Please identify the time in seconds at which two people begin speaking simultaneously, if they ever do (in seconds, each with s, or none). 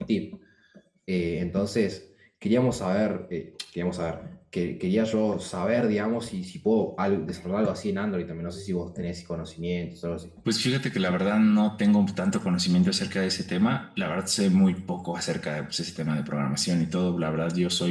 none